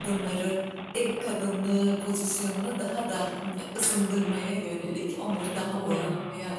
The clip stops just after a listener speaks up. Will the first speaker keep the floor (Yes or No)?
Yes